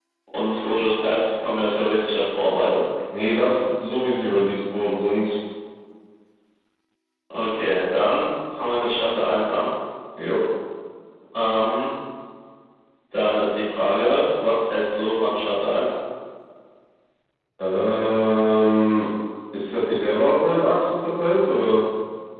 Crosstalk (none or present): none